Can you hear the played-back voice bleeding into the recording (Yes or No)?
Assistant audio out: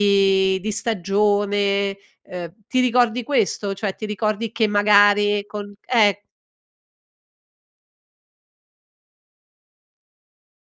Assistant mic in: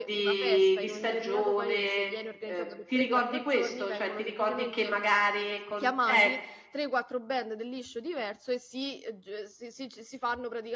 Yes